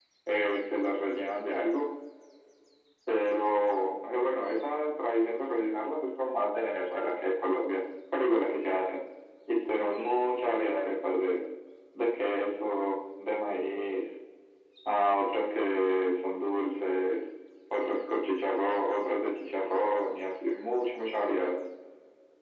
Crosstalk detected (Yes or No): No